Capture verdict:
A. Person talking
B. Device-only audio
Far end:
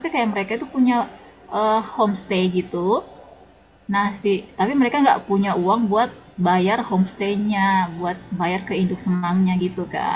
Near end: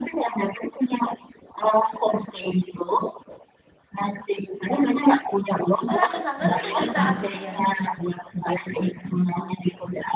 A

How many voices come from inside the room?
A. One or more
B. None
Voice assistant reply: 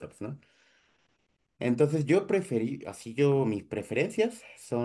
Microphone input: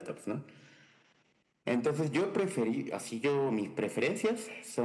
B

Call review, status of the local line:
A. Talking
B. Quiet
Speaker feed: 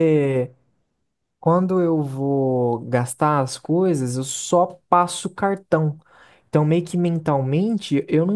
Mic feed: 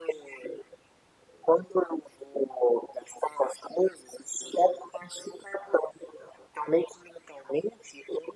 B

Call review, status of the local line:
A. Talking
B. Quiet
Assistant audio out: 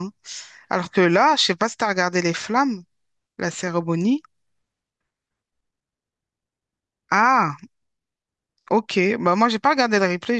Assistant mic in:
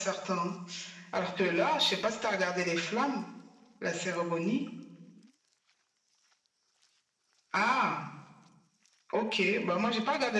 B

